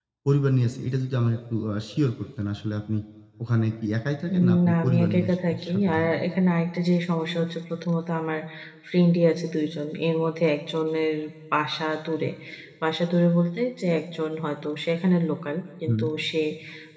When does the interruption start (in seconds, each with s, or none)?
4.3 s